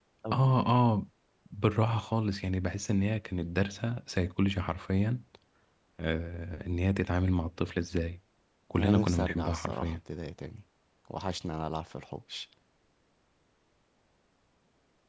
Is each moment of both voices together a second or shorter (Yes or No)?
No